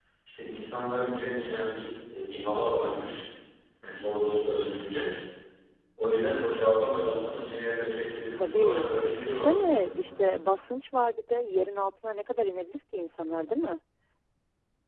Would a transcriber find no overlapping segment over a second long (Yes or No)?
No